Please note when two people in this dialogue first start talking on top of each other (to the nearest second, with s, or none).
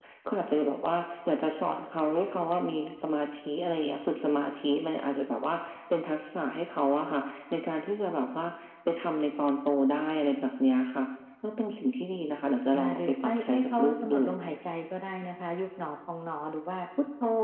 13 s